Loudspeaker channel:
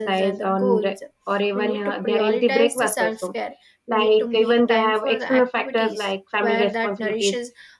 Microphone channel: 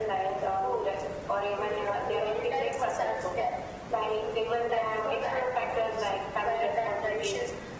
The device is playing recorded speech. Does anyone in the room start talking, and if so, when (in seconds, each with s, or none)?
none